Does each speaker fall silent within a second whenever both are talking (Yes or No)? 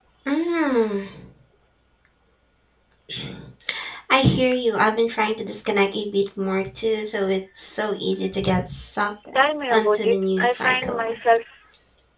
No